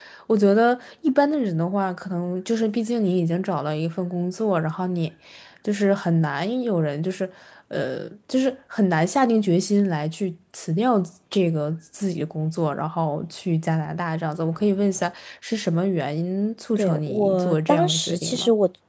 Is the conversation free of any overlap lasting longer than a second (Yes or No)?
No